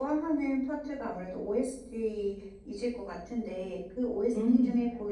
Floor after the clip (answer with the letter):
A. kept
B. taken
A